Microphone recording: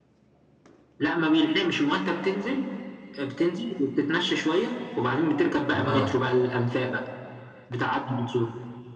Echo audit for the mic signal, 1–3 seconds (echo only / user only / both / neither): echo only